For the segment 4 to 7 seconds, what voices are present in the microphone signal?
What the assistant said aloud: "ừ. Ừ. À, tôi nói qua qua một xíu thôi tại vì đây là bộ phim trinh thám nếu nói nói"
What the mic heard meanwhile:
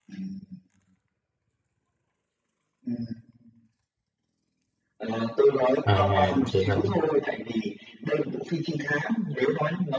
both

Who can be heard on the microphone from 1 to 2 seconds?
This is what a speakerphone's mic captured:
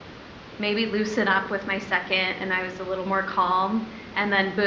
user only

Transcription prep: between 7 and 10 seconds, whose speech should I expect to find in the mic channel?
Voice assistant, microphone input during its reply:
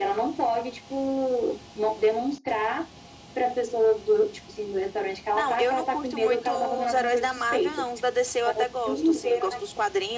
echo only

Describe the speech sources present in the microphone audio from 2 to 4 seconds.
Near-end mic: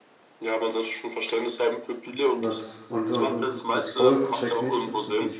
both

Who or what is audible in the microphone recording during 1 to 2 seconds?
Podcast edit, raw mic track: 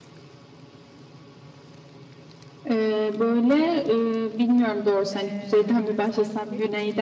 neither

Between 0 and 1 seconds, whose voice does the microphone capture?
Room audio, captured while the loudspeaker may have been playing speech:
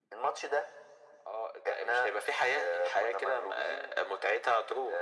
echo only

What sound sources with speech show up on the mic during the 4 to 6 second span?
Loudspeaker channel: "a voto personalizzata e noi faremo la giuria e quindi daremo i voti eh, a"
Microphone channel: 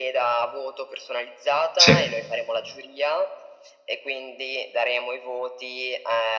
echo only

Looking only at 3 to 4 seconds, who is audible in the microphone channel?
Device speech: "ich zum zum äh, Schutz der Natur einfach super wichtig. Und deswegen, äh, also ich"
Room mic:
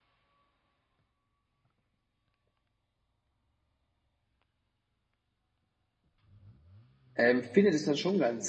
neither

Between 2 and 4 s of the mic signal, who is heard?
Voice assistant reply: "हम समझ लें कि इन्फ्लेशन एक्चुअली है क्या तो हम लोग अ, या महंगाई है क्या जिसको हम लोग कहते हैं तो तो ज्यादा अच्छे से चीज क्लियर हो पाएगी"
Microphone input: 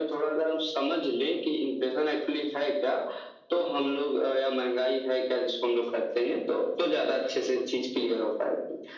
echo only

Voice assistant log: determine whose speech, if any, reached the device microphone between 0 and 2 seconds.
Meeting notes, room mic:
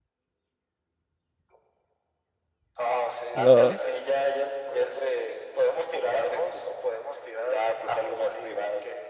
neither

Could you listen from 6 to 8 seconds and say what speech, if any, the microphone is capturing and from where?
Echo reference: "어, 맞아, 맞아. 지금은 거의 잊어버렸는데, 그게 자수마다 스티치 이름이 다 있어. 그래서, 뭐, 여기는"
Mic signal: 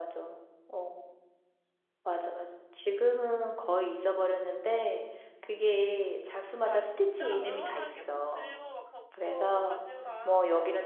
both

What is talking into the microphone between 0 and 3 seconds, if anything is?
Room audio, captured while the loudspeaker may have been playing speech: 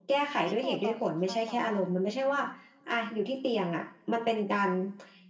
both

